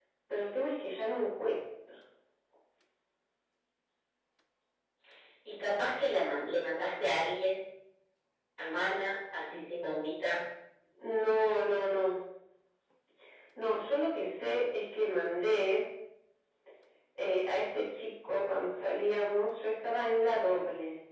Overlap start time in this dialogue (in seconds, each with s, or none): none